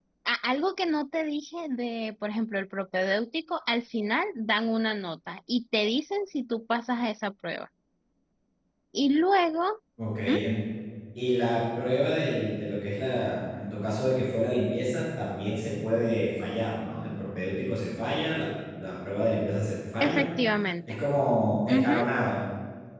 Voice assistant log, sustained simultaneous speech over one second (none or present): none